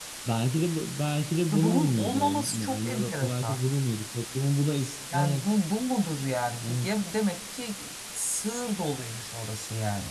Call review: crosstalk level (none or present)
present